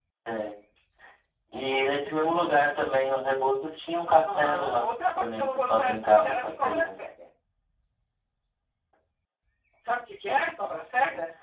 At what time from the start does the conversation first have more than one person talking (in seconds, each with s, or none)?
4.2 s